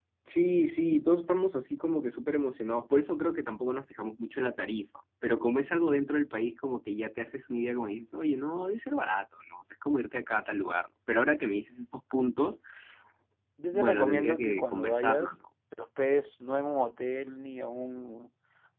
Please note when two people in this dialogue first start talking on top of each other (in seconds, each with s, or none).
13.7 s